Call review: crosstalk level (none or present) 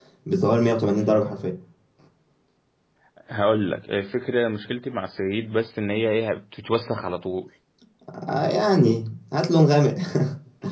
none